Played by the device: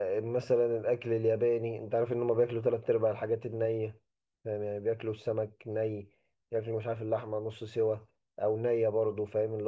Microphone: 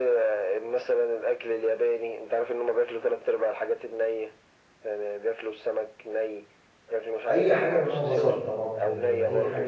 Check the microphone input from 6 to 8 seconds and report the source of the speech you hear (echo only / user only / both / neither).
both